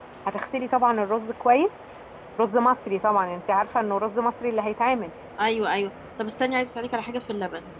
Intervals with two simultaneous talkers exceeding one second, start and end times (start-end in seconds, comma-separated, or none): none